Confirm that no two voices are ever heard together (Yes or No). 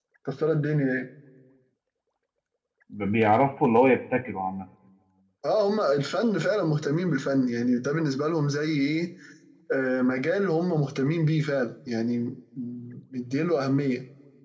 Yes